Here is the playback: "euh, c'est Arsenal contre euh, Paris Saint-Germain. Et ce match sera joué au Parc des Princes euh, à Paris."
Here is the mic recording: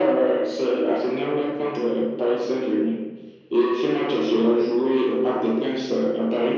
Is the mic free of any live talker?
Yes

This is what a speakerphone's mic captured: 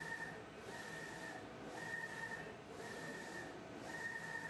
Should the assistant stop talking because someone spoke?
No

